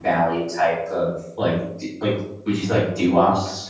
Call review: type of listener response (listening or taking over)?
taking over